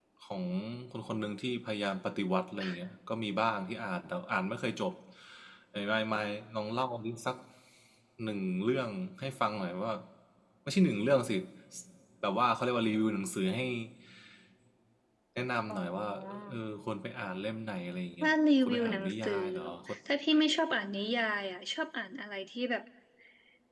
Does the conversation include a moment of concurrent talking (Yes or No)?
Yes